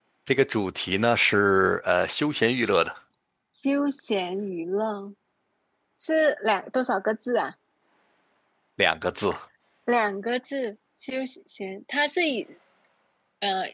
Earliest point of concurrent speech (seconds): none

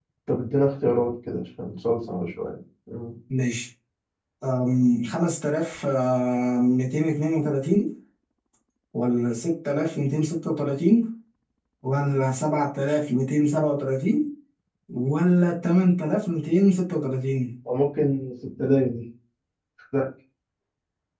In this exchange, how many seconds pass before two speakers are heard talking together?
none

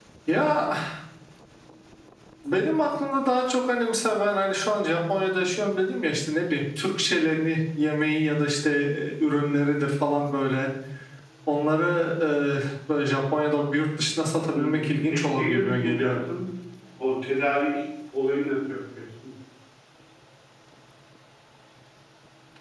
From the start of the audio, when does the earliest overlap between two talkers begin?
14.5 s

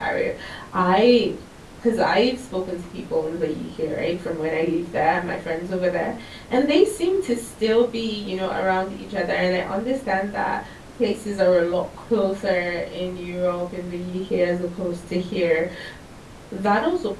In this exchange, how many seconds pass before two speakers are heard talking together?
none

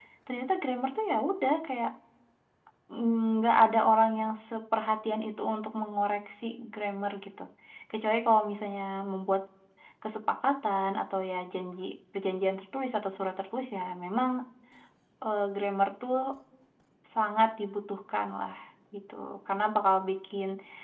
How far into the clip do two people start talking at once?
none

